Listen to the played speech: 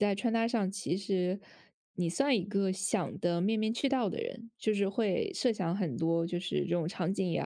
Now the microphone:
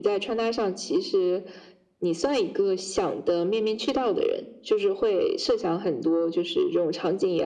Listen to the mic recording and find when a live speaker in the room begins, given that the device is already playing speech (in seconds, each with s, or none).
none